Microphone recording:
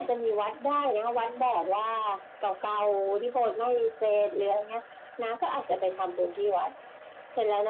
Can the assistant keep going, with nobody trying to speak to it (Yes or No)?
Yes